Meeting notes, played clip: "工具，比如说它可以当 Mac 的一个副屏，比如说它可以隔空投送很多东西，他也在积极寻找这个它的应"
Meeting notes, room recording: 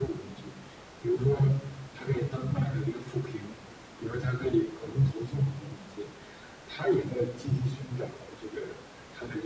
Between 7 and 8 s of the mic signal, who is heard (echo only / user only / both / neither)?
echo only